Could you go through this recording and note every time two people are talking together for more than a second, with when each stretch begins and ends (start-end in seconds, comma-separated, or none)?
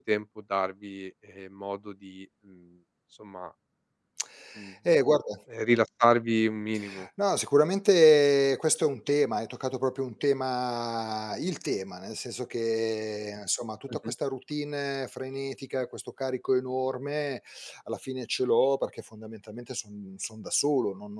none